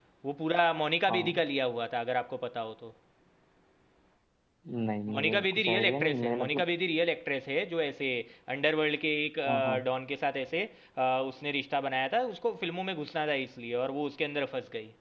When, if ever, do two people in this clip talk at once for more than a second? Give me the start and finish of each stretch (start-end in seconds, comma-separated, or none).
5.1-6.6